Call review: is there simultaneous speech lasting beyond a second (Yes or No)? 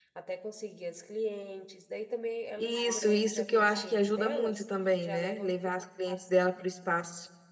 Yes